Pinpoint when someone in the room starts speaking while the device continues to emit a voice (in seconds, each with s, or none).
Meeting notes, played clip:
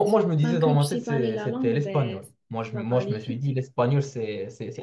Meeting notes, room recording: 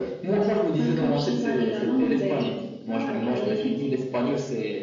1.0 s